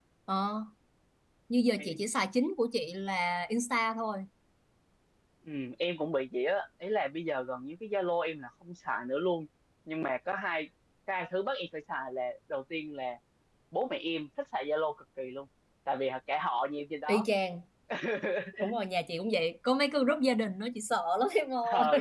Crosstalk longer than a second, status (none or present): none